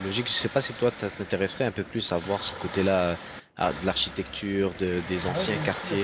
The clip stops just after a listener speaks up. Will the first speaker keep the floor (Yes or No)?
No